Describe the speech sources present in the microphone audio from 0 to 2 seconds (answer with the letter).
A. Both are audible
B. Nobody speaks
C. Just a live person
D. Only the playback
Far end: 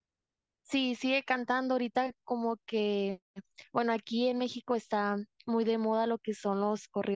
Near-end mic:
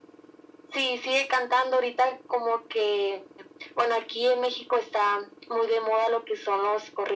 D